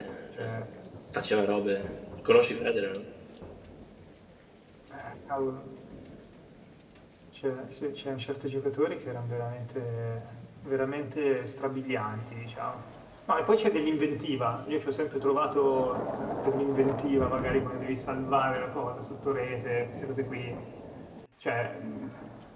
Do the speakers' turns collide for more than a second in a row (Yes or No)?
No